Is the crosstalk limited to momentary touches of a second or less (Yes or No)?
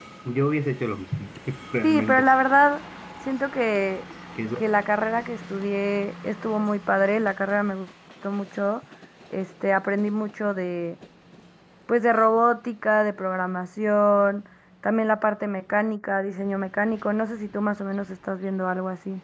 Yes